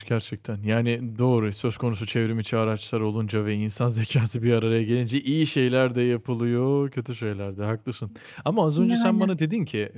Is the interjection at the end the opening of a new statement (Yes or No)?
No